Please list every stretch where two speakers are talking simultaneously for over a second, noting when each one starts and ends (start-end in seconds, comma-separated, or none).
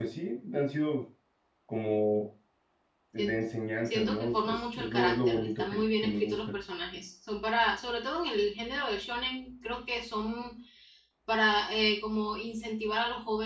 3.9-6.4